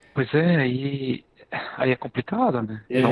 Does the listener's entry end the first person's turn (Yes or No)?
Yes